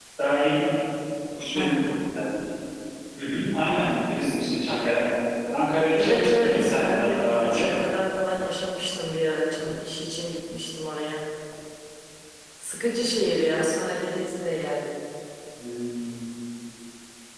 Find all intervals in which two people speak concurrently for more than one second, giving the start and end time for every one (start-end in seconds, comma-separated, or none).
6.0-7.7